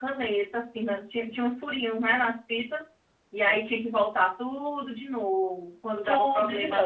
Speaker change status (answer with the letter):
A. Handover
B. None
A